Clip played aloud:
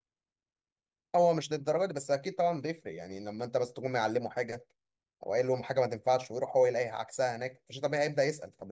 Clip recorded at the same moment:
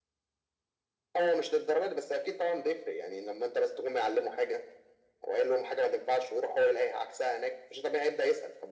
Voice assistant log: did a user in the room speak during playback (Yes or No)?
No